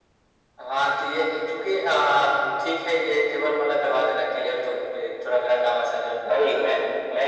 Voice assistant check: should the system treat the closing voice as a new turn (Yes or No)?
Yes